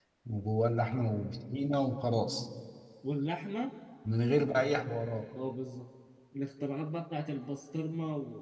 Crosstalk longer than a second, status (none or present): none